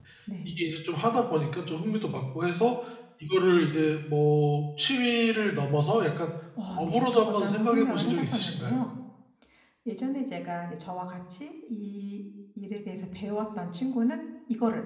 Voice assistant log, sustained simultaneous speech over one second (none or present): present